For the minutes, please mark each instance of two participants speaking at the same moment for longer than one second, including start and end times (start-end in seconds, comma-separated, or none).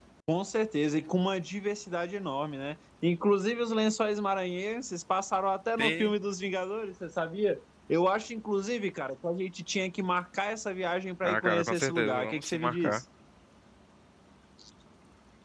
11.2-13.0